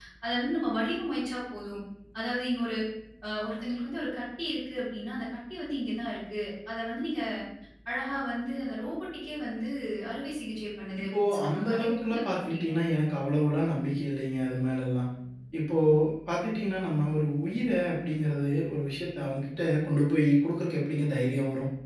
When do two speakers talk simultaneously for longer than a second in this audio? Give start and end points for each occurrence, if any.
11.0-12.7

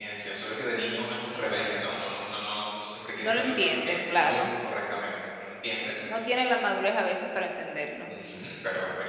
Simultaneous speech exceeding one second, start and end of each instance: 3.2-4.4

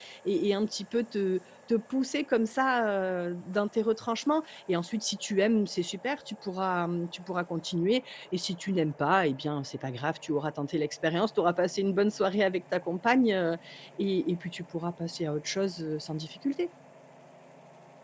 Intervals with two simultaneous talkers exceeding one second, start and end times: none

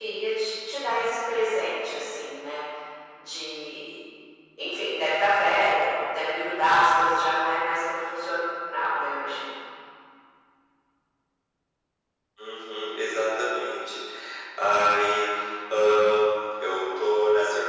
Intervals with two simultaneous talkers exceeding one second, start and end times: none

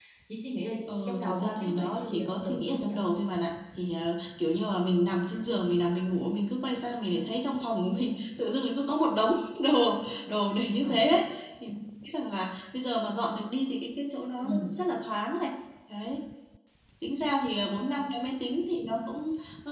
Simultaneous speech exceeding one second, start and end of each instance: 1.1-3.0

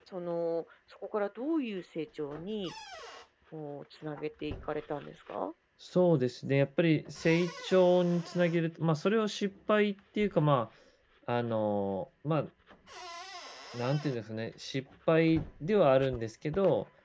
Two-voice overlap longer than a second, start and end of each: none

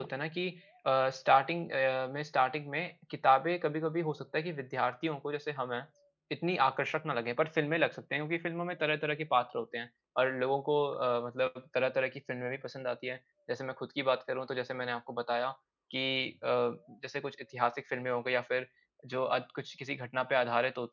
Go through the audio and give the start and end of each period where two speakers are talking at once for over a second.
none

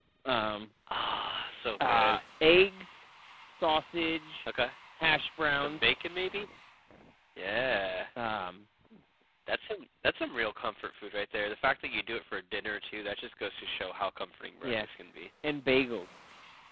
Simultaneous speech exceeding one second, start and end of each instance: none

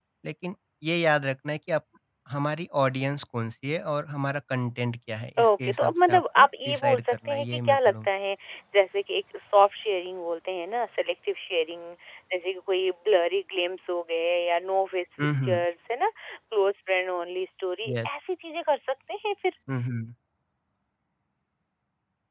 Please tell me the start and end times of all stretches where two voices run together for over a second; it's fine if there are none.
5.4-8.1

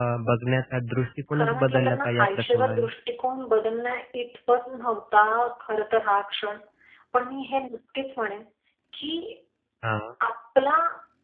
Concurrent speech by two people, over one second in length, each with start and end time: 1.3-2.9

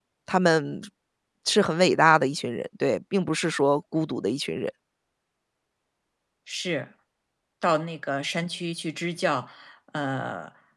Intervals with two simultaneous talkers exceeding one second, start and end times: none

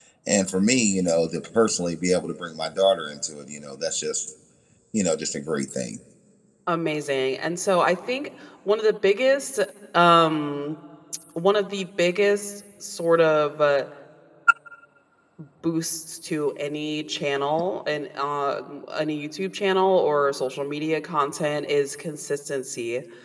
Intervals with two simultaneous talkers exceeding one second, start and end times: none

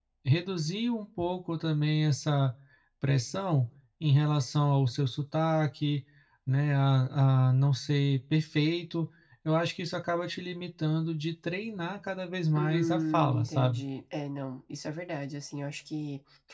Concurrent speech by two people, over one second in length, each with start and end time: 12.6-13.8

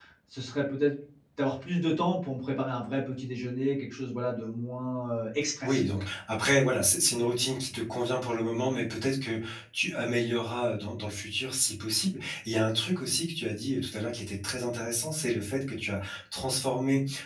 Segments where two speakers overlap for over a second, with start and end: none

